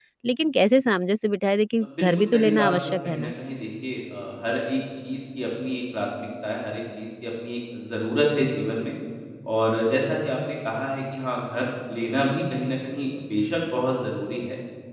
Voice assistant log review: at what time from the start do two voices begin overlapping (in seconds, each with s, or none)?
2.0 s